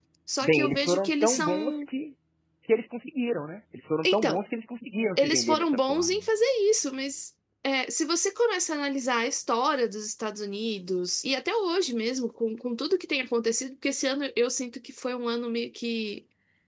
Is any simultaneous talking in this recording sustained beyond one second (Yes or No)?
Yes